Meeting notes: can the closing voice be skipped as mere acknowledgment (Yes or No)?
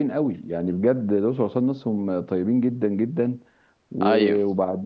Yes